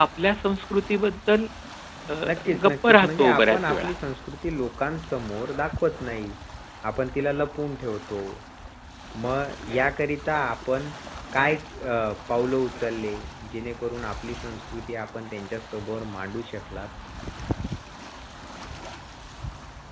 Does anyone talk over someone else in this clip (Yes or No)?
Yes